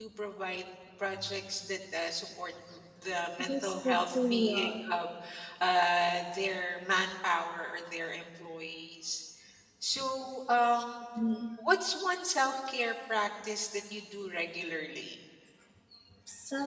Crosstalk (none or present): present